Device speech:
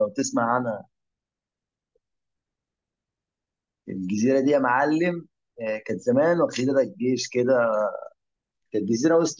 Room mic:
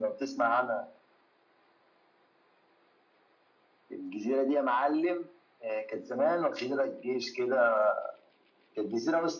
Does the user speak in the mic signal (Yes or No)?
No